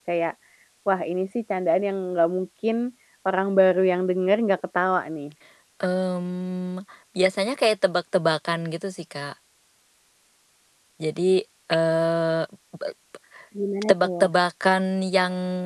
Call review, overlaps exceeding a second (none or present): none